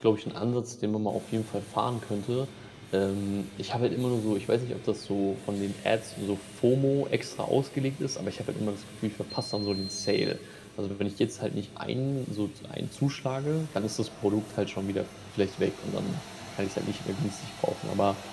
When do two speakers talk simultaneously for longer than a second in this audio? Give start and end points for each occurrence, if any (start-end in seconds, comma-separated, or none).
none